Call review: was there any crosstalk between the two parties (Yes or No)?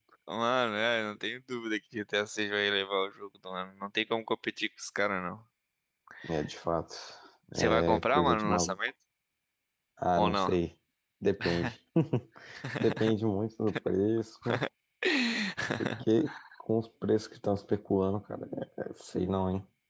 Yes